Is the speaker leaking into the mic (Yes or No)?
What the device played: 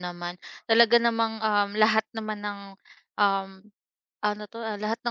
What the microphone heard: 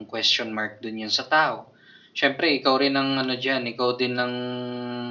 No